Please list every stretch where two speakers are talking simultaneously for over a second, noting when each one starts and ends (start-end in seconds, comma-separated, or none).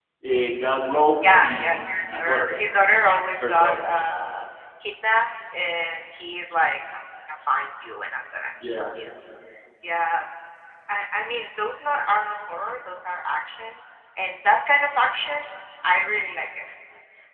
1.2-2.5